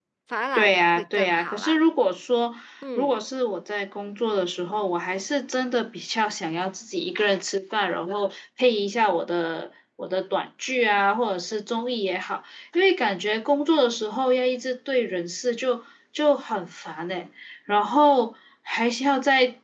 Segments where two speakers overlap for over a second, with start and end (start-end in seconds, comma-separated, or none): 0.6-1.8